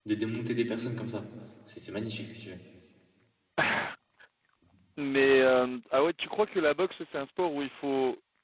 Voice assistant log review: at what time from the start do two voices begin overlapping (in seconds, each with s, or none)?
none